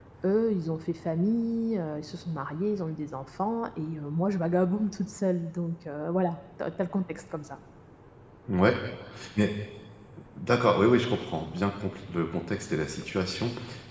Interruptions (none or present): none